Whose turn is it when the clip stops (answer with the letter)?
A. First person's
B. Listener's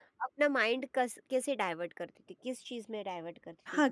B